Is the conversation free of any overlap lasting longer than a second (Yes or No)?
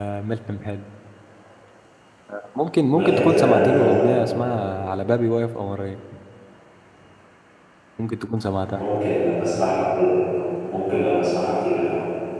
No